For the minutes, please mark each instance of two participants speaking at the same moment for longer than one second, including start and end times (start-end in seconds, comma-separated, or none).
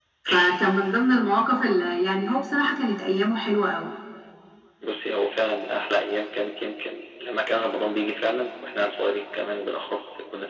none